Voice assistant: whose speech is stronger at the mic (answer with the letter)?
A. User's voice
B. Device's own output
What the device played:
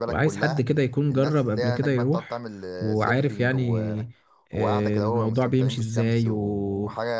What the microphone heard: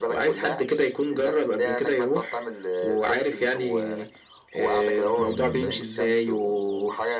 B